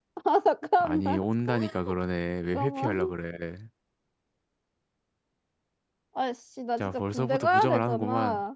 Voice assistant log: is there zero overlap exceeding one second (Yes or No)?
No